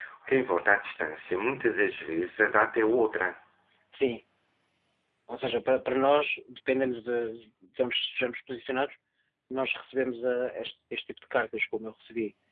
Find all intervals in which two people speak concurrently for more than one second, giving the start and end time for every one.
none

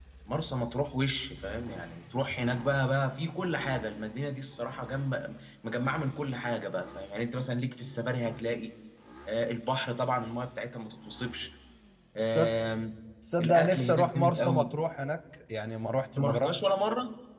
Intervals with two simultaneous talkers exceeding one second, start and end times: 13.4-14.7

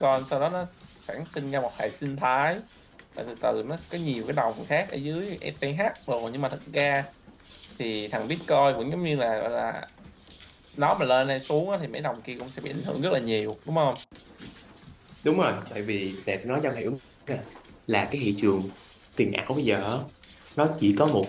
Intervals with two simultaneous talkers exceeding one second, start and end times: none

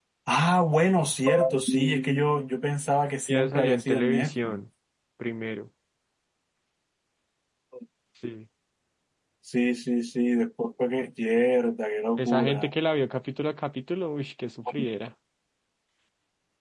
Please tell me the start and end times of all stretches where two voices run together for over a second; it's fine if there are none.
3.3-4.6

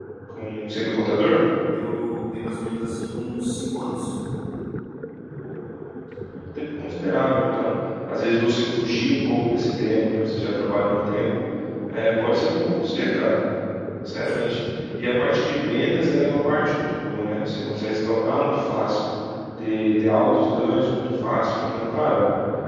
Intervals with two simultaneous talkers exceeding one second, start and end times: none

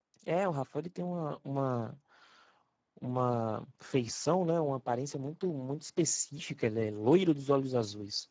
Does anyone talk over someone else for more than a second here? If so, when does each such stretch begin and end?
none

